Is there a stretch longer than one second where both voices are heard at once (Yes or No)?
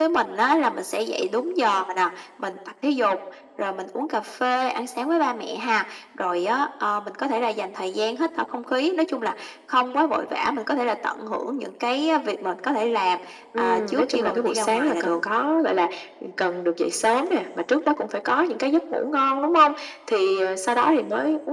Yes